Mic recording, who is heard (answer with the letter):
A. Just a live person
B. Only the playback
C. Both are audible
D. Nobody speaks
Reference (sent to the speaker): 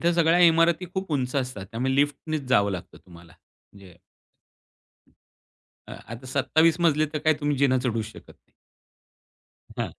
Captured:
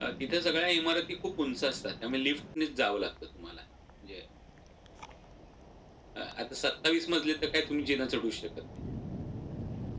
B